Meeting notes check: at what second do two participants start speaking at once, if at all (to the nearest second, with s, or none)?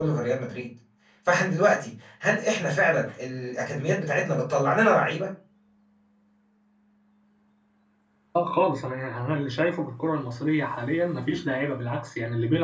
none